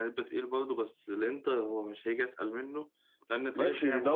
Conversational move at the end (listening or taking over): taking over